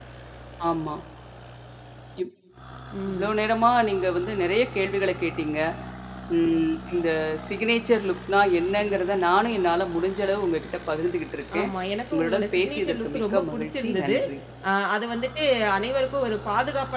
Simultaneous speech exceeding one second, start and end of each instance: 12.1-14.2

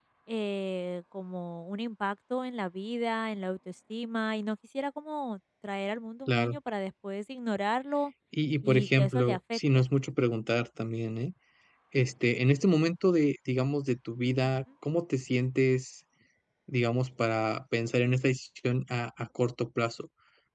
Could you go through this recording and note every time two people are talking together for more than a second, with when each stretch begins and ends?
8.6-9.8

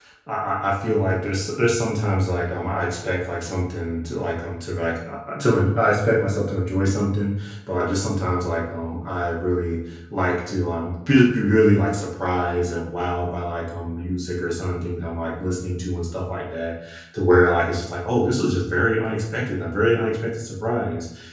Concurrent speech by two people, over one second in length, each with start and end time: none

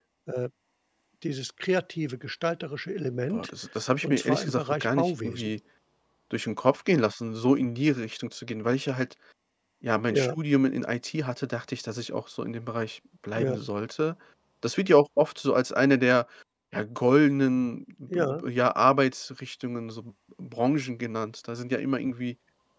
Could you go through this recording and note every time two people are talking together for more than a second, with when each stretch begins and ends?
4.0-5.5

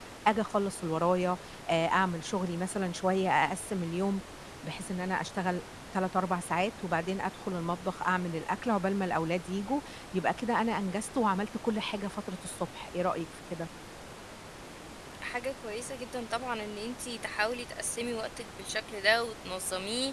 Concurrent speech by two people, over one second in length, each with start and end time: none

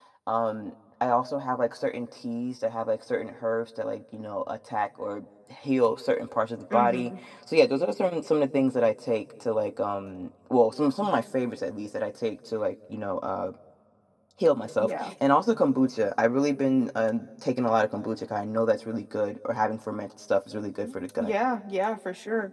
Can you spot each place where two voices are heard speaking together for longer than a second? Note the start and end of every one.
none

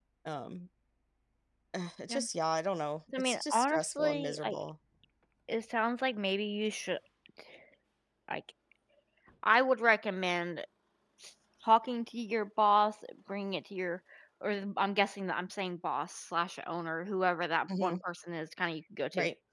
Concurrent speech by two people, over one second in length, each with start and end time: 3.2-4.5

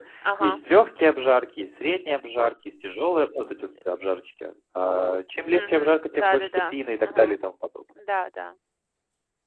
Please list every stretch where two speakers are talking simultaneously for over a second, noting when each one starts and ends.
5.5-7.4

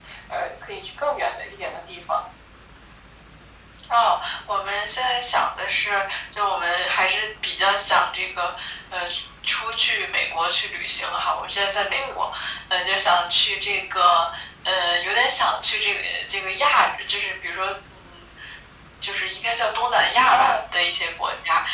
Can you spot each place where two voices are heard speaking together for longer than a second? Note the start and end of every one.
none

